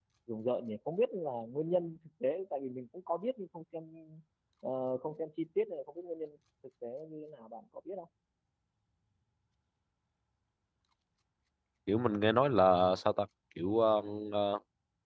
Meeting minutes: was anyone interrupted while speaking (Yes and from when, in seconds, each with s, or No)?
No